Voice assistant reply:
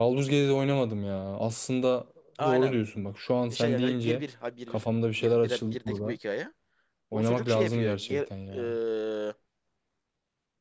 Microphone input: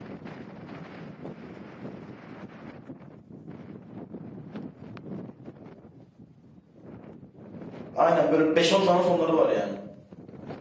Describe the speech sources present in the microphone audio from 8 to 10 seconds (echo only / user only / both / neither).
user only